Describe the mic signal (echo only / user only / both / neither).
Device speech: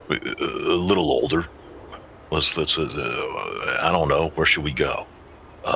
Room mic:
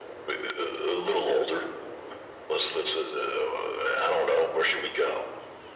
echo only